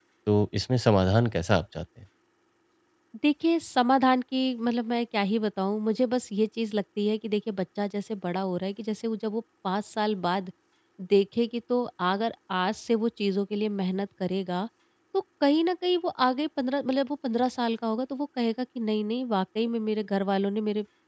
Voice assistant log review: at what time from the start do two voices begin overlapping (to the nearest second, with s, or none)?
none